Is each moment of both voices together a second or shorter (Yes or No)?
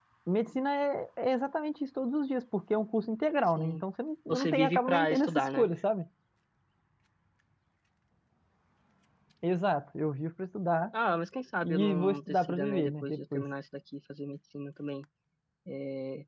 No